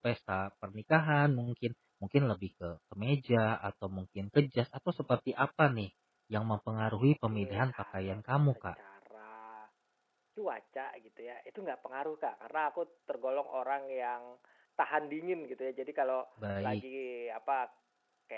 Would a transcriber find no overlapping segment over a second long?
No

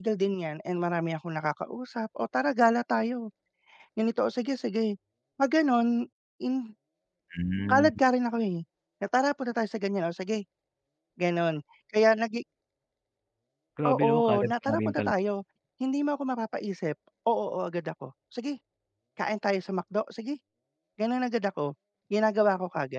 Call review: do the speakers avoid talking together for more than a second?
No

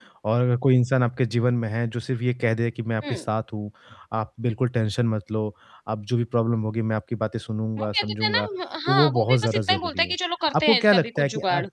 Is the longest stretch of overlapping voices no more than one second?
No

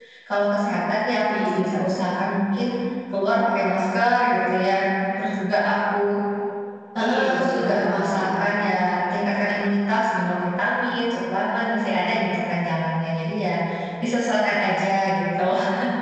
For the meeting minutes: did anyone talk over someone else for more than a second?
Yes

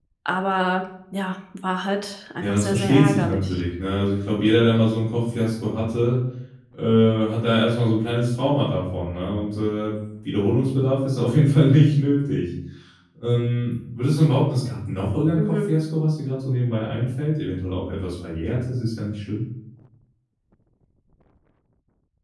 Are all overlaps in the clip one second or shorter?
No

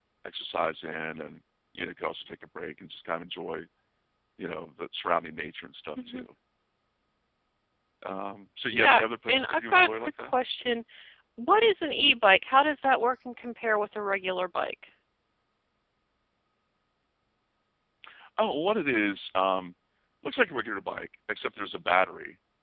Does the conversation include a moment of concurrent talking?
Yes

